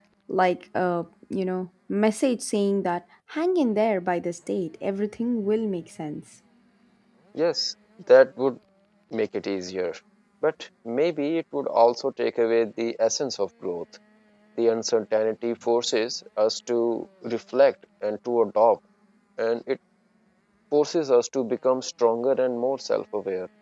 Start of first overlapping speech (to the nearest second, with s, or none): none